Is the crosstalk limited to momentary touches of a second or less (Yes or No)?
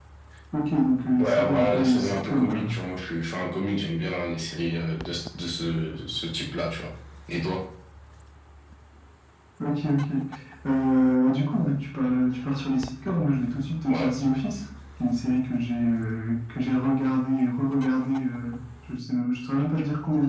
No